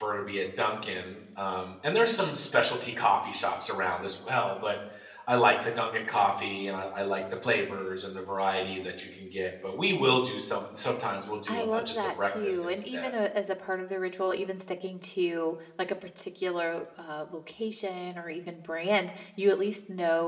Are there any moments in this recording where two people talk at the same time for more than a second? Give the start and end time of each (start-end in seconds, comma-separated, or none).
11.5-13.1